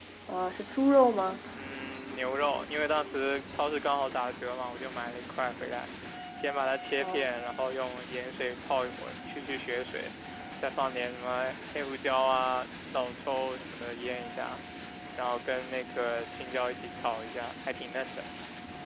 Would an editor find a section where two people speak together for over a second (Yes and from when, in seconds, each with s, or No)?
No